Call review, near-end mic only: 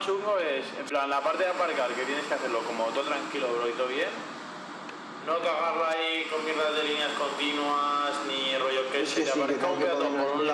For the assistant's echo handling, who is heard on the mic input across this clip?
both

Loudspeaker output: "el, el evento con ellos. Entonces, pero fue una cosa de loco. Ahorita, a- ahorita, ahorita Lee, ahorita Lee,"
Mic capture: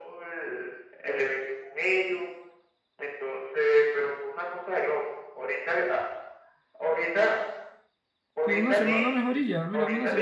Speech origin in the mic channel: both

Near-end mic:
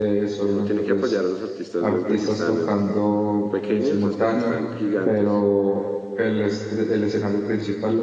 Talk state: both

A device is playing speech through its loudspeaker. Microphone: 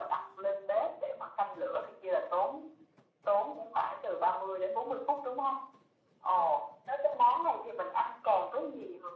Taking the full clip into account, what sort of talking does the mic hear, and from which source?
echo only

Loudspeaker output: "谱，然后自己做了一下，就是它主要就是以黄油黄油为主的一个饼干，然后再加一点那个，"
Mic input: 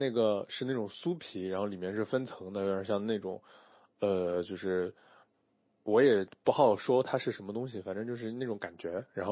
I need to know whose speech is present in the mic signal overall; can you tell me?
user only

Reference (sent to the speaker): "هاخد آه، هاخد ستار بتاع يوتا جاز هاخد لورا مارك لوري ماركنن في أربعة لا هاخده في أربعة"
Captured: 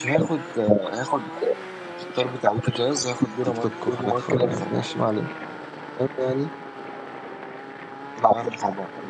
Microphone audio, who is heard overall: both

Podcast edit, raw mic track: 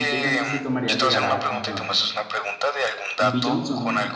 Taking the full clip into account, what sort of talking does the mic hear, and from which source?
both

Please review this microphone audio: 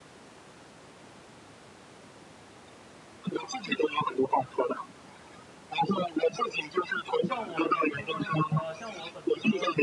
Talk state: both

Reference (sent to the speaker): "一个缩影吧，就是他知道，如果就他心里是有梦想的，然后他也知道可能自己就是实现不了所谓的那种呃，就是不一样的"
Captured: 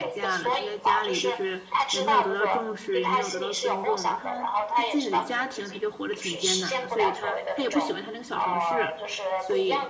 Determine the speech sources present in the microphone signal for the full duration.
both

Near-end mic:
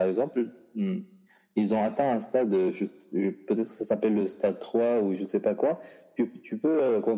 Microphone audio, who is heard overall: echo only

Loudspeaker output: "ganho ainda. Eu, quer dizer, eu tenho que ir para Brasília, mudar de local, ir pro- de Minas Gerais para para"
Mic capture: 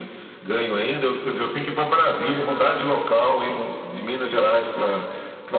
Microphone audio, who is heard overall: echo only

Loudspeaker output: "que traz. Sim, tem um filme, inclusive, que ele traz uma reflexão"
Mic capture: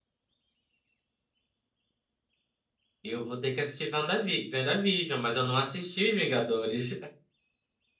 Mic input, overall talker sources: user only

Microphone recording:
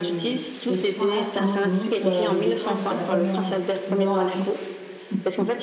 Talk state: both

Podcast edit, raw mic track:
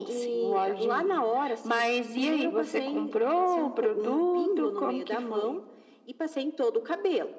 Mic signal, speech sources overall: echo only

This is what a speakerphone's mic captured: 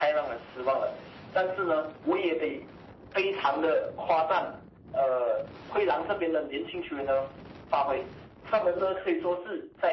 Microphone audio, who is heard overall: echo only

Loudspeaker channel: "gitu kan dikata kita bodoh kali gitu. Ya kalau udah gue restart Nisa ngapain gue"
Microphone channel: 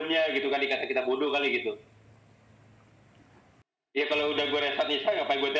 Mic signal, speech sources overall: echo only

